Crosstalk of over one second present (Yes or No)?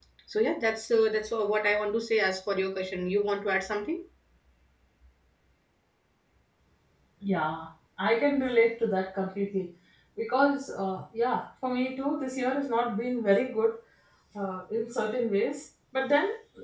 No